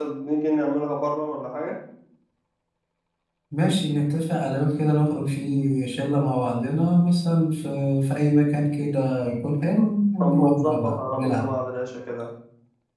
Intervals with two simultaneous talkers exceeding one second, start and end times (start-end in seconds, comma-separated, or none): 10.2-11.4